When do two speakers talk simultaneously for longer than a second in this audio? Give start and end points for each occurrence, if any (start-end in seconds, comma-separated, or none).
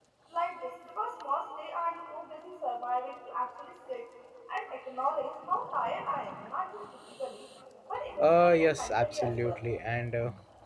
8.2-9.6